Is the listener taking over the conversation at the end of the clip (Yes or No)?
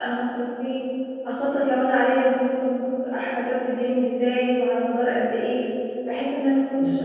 No